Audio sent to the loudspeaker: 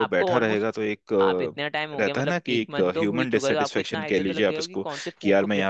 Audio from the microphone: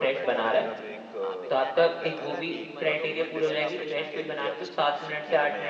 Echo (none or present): present